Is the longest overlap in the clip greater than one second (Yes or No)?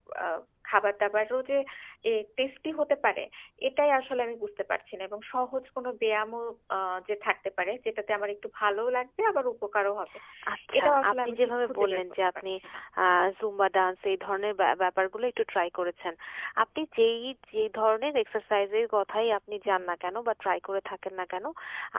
Yes